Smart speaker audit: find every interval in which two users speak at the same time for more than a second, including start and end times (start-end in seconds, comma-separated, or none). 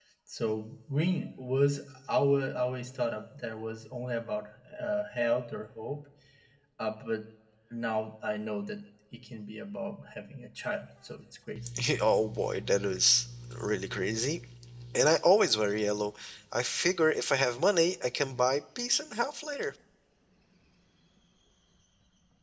none